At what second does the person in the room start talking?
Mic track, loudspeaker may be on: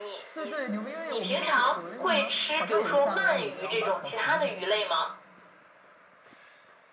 0.3 s

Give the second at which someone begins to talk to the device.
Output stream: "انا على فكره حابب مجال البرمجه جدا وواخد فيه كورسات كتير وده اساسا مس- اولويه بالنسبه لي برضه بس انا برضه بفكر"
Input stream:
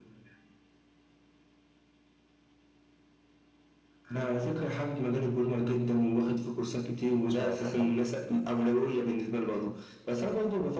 7.2 s

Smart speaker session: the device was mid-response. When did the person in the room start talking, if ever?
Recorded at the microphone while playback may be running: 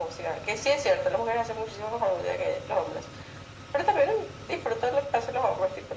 none

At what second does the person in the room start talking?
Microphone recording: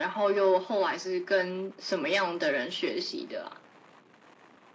none

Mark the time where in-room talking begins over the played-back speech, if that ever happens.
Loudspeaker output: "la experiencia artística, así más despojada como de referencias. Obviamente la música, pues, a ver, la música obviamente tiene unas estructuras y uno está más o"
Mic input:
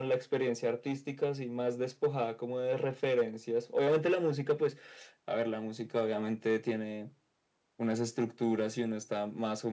none

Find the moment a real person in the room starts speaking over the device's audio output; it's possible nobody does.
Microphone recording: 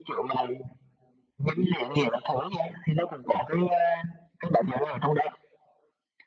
none

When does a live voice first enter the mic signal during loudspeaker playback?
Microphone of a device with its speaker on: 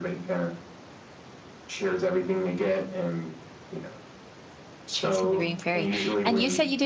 4.9 s

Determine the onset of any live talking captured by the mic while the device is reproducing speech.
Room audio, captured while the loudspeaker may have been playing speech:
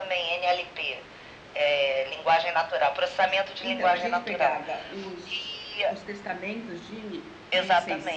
3.6 s

